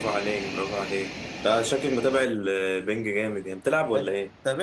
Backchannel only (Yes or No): No